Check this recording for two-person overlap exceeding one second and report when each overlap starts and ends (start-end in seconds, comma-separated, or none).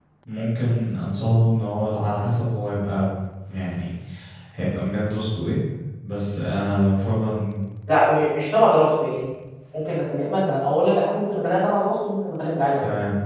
none